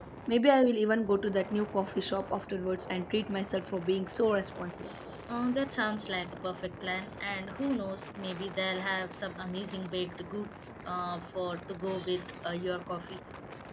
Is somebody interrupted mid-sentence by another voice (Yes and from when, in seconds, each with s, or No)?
No